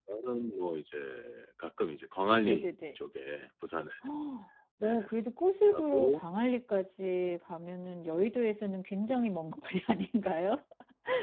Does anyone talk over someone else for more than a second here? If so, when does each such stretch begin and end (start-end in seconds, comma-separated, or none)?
none